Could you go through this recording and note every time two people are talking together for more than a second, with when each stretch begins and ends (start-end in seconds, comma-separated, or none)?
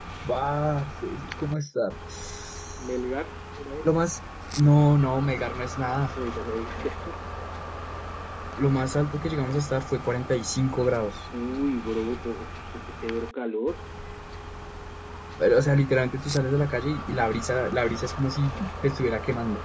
none